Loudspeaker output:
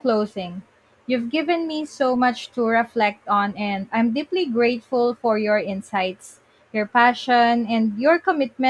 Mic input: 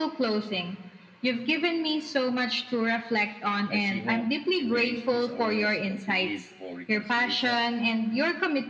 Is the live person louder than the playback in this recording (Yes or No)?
No